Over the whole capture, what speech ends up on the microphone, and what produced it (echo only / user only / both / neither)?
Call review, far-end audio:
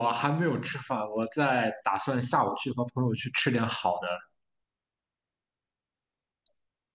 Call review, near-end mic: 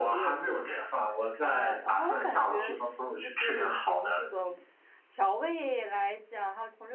both